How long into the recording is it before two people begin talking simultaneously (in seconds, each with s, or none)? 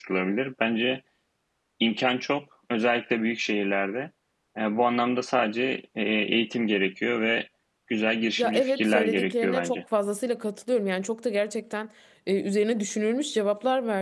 8.4 s